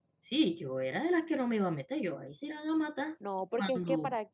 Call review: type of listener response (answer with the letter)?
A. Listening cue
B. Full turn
B